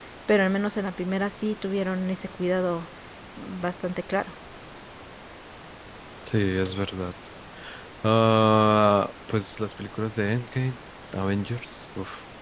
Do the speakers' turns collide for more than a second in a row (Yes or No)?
No